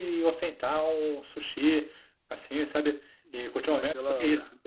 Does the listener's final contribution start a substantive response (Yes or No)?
No